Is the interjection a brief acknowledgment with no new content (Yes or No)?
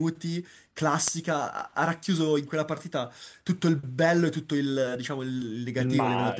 Yes